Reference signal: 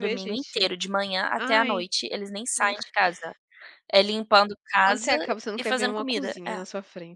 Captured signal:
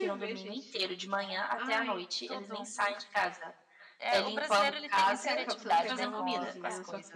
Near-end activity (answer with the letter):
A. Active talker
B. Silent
A